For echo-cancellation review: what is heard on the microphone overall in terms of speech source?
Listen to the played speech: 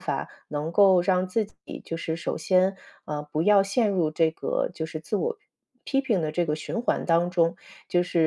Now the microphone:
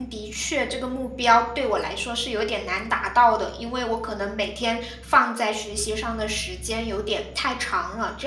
user only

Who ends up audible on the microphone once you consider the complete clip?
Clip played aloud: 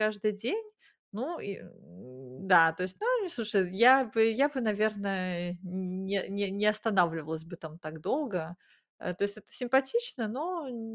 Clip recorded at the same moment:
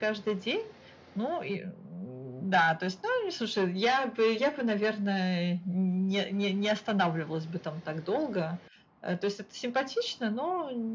echo only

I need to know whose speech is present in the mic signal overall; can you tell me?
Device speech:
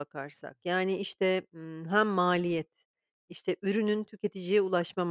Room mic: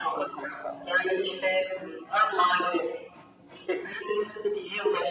echo only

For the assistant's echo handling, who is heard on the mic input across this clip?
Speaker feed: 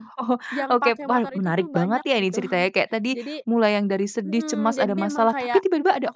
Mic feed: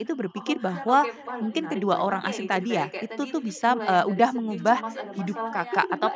both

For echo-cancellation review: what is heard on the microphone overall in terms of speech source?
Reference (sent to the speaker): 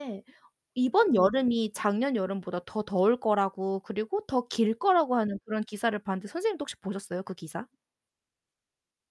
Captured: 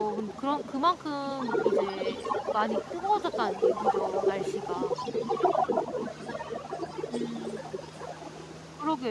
both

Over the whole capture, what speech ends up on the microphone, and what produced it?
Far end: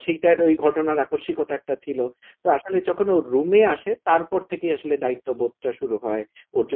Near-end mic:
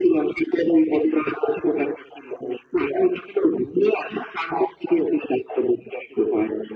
echo only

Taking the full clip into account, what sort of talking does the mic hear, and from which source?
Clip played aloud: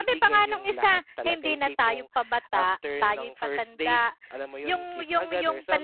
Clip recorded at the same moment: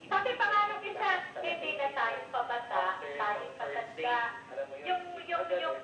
echo only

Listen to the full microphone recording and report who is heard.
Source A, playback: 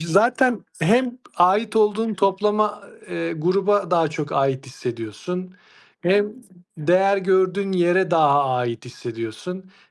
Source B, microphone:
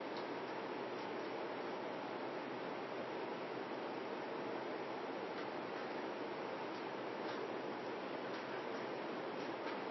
neither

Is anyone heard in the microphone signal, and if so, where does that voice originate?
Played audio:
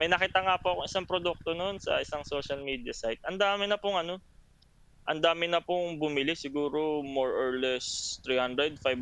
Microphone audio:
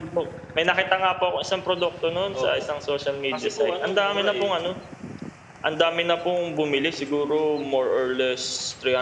both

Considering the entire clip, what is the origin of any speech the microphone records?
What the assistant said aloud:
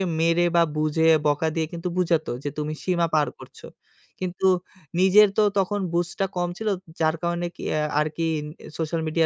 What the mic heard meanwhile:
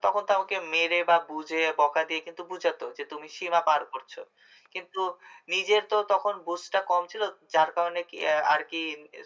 echo only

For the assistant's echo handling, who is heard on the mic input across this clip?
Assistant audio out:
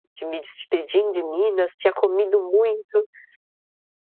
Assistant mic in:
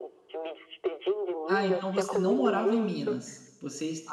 both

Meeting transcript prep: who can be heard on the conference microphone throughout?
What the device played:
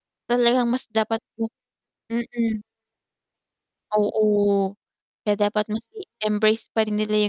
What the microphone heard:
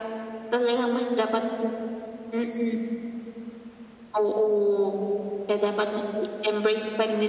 echo only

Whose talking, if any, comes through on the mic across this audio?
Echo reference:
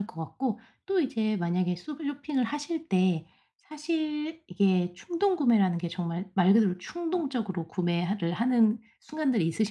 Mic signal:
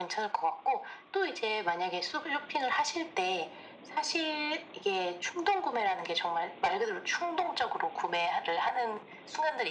echo only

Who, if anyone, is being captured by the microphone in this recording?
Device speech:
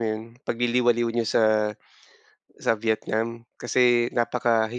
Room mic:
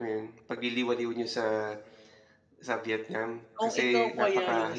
both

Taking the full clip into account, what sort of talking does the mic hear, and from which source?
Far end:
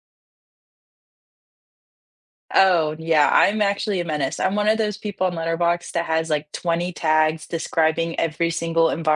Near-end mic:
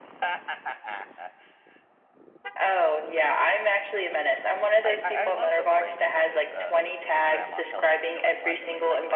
both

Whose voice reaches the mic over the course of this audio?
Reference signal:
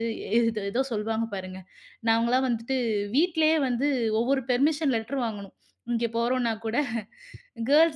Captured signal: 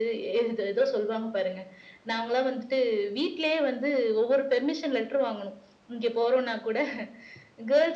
echo only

